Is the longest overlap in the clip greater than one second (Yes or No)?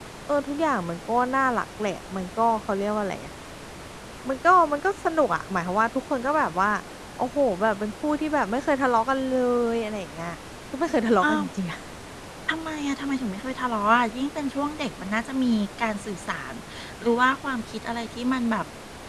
No